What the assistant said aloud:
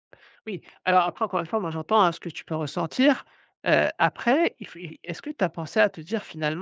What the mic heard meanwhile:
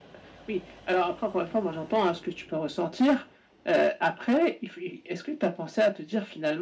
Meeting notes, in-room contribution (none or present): none